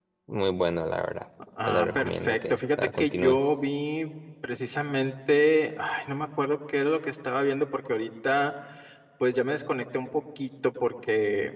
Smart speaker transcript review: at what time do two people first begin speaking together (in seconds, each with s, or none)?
1.4 s